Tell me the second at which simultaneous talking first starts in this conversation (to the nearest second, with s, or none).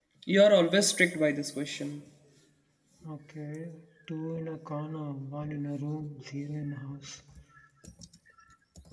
none